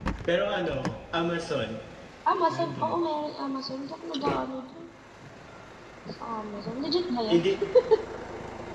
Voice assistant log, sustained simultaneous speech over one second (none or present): none